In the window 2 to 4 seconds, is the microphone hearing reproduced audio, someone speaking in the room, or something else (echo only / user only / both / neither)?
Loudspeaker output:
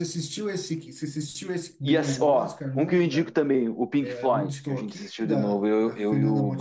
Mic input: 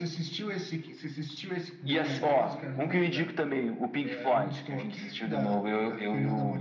both